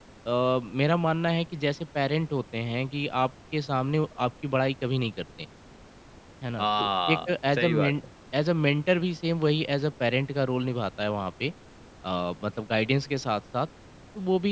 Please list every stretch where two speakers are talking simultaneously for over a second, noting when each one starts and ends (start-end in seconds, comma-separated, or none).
6.6-8.0